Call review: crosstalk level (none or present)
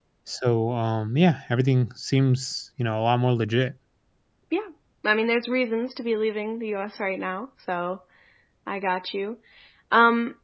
none